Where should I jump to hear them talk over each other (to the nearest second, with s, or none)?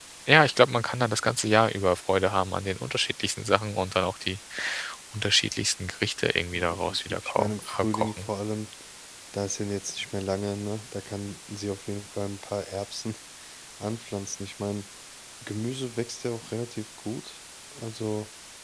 7 s